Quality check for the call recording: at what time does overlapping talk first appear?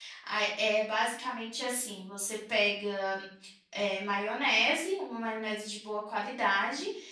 none

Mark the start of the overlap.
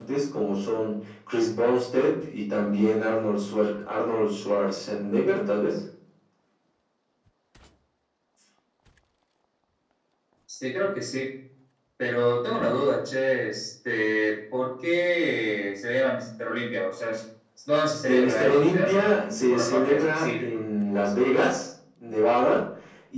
18.0 s

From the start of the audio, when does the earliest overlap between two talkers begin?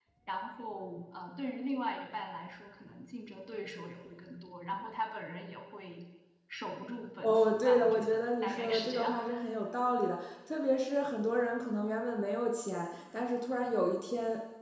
7.2 s

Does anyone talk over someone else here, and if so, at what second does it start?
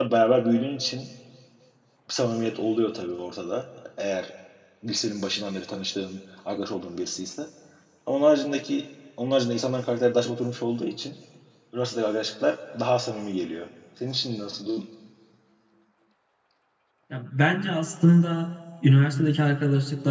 none

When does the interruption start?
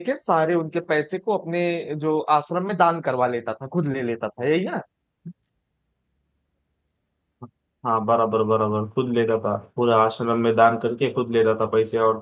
none

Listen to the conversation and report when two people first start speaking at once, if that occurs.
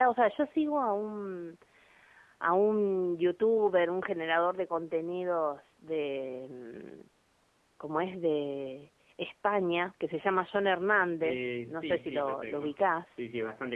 11.2 s

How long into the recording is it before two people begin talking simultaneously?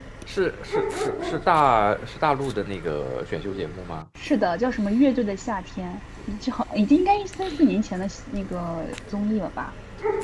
none

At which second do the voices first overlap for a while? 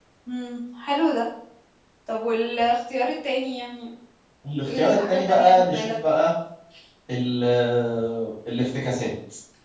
4.7 s

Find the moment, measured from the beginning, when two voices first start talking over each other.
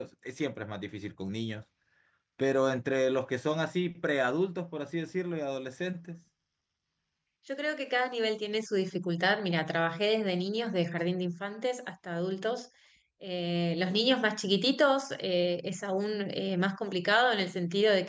none

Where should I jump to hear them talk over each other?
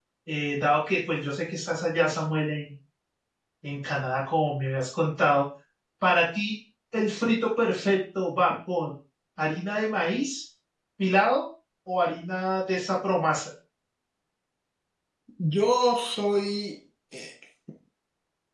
none

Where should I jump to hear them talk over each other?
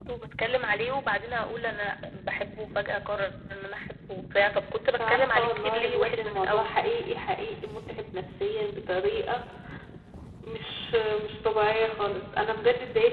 4.9 s

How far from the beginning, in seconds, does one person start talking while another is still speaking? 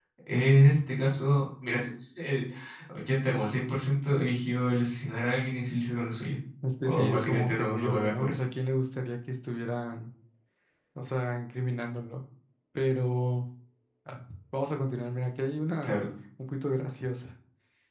6.8 s

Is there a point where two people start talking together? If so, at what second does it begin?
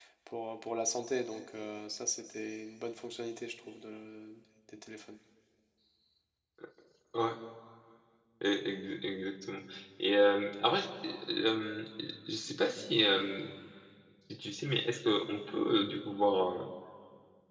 none

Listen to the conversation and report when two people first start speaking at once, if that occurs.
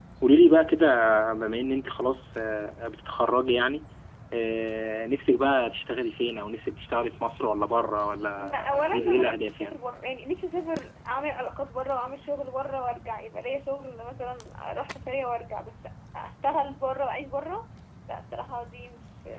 8.4 s

